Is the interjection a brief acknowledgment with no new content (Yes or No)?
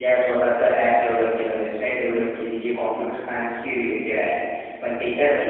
Yes